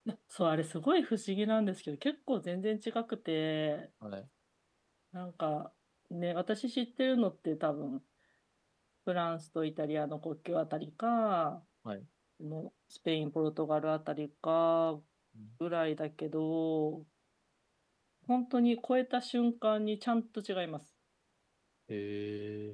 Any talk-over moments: No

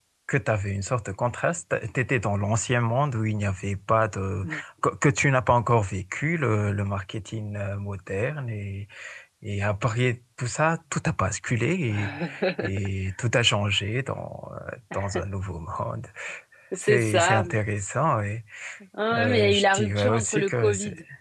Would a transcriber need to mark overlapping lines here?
Yes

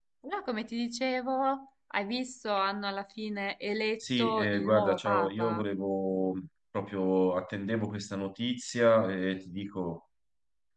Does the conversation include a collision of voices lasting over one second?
Yes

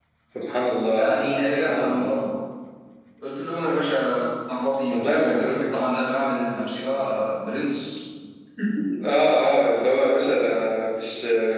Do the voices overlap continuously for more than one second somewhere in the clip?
Yes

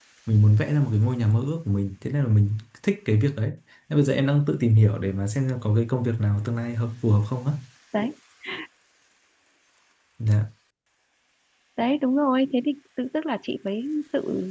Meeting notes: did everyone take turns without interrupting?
Yes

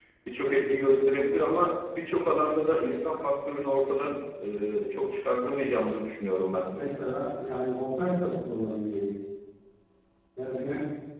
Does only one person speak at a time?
Yes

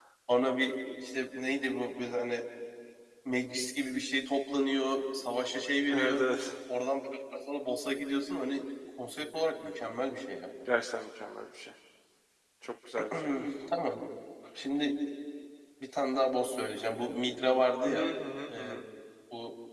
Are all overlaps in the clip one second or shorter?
Yes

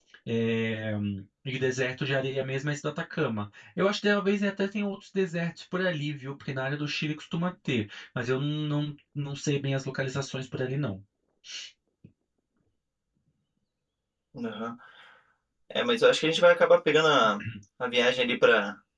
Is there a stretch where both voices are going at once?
No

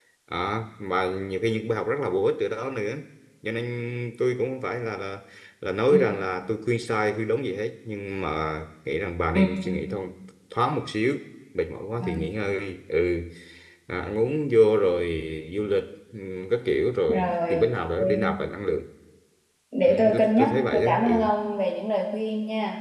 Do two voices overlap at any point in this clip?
Yes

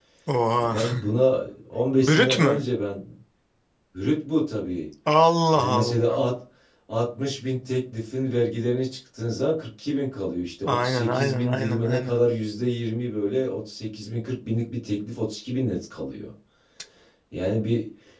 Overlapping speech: Yes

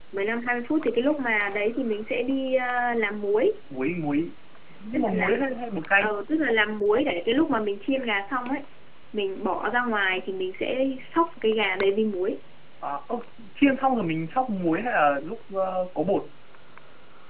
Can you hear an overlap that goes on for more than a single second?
No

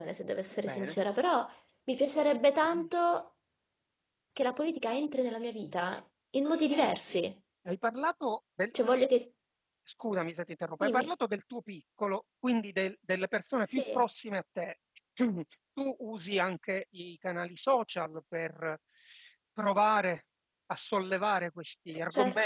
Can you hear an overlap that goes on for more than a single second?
No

